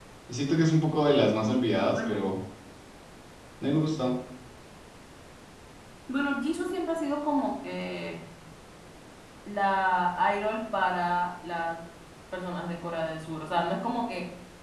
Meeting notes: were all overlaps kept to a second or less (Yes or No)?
Yes